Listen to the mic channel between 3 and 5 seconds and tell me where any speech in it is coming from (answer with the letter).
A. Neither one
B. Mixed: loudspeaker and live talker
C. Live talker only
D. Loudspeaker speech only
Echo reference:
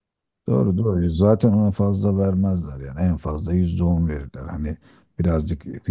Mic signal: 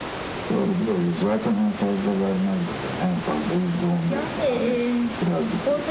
B